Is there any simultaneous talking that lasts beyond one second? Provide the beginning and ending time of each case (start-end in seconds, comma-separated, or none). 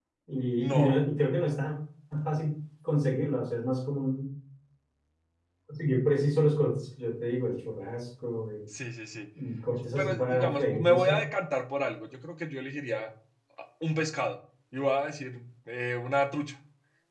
9.9-11.3